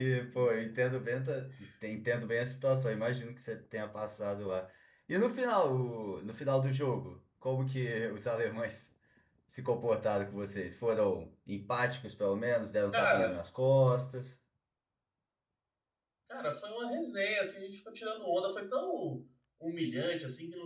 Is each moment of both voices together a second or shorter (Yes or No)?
Yes